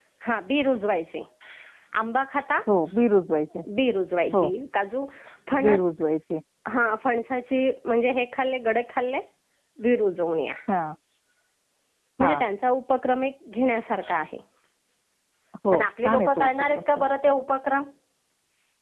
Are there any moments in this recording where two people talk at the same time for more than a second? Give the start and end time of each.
15.7-17.1

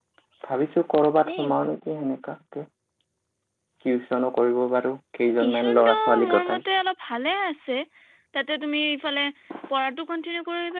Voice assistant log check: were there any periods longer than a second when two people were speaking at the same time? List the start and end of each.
5.2-6.6

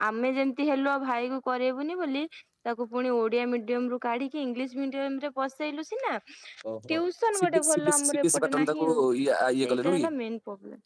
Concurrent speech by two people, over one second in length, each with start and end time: 7.4-8.9

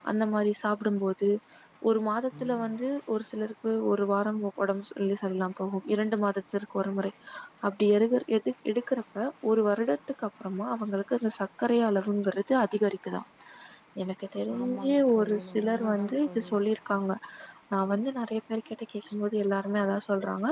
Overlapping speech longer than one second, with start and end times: 14.6-16.5

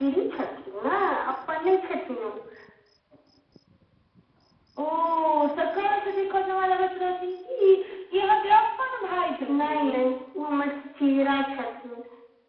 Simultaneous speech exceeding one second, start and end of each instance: none

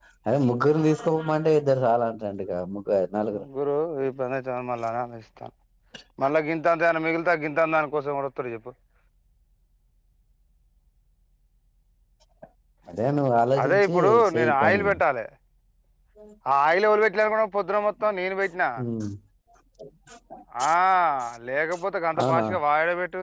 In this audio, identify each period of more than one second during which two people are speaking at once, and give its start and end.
13.6-14.8

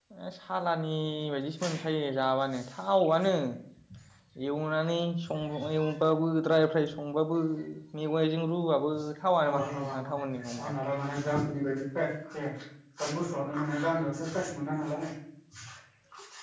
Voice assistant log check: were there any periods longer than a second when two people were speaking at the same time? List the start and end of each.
9.4-10.7

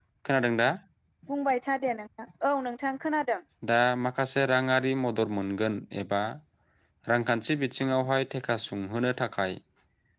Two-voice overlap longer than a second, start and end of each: none

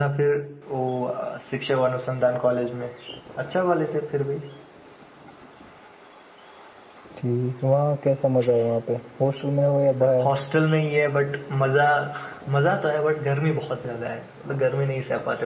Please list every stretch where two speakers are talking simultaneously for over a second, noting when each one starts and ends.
none

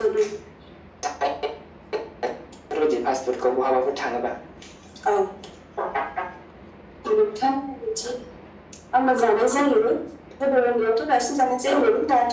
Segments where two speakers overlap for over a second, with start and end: none

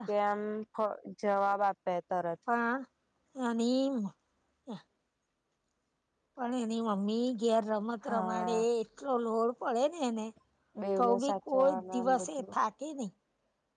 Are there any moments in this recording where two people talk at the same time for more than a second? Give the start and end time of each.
11.0-12.6

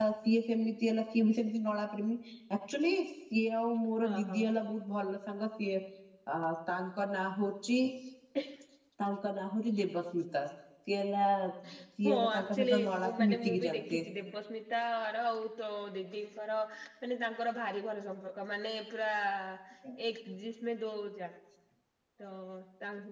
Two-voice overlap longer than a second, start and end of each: 12.2-14.0

